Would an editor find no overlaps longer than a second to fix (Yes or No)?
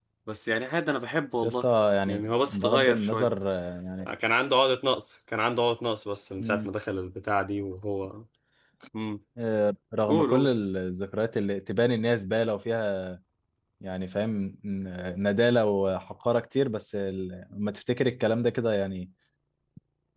No